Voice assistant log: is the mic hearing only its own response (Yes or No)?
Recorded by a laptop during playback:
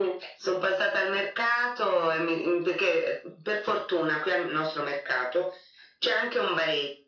Yes